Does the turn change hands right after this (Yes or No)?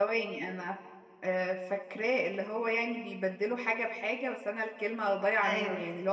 Yes